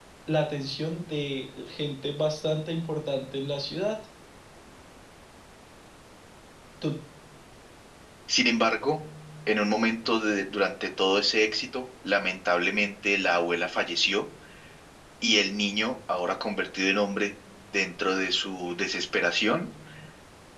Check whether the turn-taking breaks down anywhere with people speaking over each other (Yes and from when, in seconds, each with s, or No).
No